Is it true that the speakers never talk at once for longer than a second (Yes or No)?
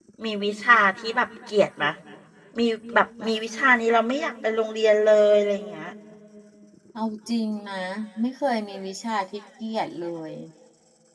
Yes